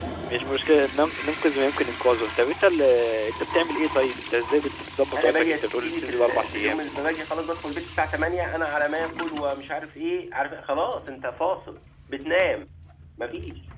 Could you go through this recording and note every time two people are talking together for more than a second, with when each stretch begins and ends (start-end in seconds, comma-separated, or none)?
5.2-6.8